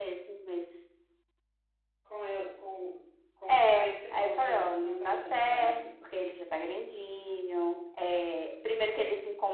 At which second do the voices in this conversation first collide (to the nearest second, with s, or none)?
3 s